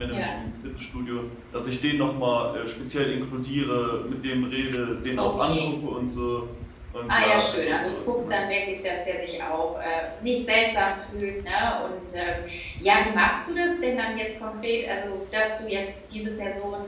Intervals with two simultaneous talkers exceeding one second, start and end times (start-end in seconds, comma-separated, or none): 7.1-8.4